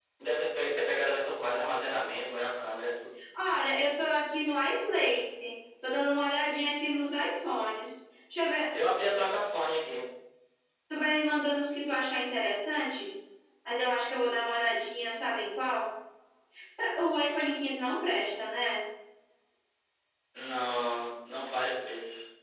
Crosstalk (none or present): none